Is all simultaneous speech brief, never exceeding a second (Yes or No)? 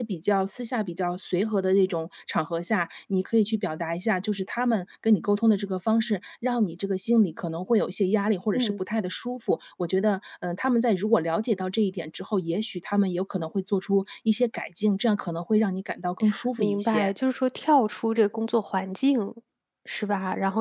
Yes